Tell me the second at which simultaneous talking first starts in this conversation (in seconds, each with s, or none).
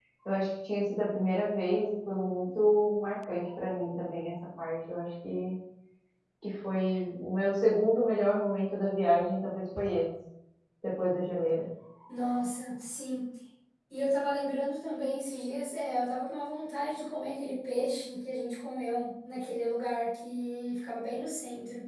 none